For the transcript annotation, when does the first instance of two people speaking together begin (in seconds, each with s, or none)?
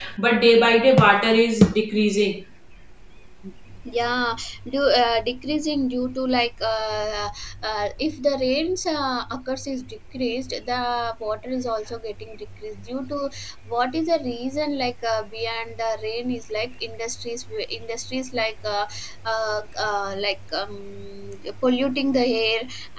none